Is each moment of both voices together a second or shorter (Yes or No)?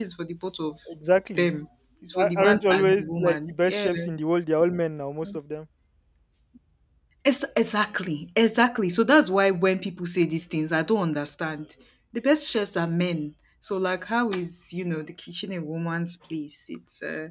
No